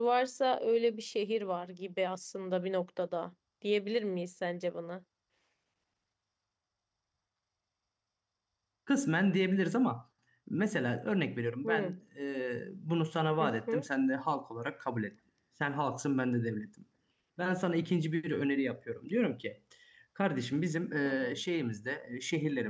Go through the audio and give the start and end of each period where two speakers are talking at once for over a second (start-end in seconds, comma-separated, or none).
none